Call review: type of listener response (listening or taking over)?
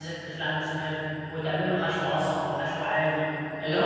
listening